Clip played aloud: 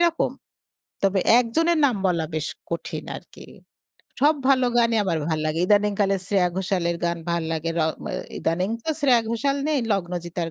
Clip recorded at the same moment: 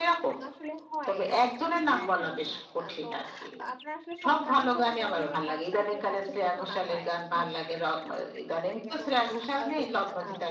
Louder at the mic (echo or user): echo